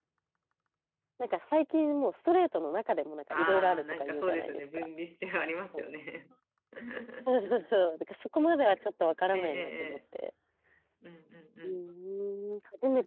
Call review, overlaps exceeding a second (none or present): present